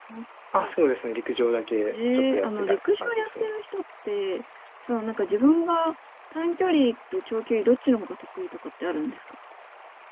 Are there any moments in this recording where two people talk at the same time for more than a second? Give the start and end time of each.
1.9-3.5

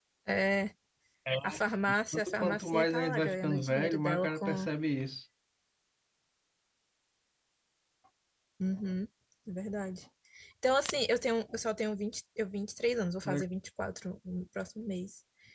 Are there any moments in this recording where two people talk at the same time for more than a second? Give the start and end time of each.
2.3-4.7

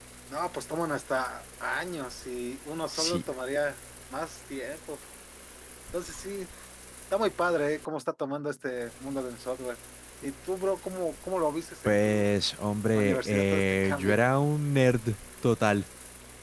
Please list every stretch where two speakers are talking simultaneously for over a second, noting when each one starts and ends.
13.0-14.2

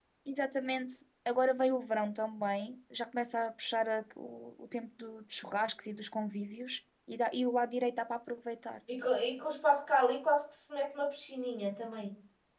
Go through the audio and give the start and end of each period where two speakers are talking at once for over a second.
none

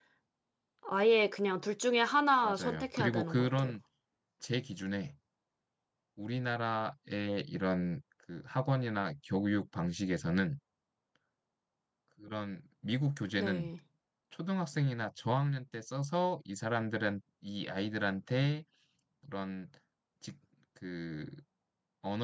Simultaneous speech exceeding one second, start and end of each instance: 2.4-3.8

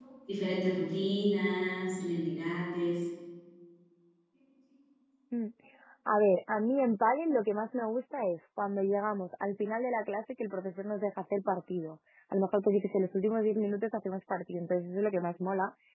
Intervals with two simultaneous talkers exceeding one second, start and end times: none

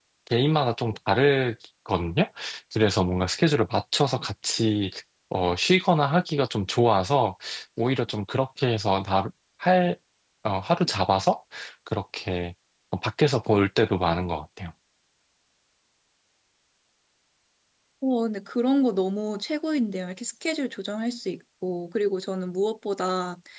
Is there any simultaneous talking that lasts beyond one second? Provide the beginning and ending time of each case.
none

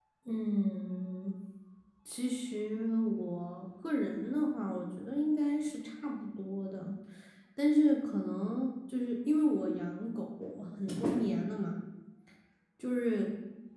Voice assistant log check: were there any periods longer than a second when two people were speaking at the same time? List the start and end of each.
none

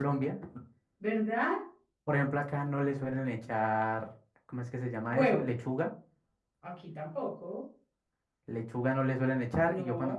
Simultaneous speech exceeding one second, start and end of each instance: none

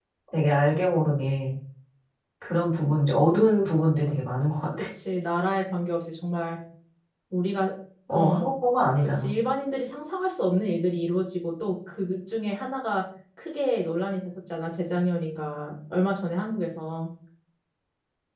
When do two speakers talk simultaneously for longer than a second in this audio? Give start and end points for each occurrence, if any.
none

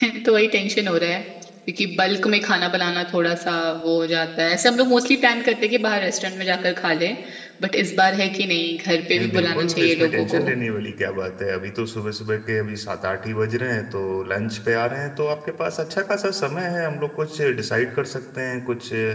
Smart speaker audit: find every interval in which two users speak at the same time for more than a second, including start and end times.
9.2-10.5

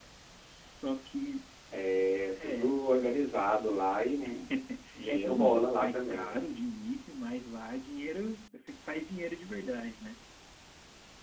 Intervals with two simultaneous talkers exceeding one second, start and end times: 5.1-6.3

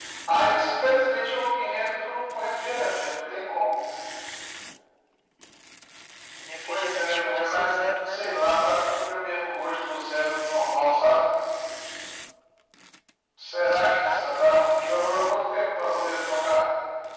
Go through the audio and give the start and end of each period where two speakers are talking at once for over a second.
6.7-8.5, 13.7-15.3

